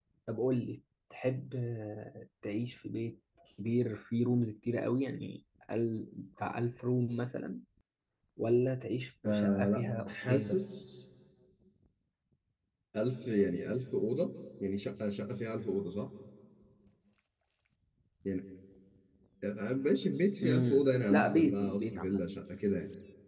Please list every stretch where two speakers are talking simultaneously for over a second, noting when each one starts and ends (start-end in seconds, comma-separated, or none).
9.2-10.6, 20.4-22.2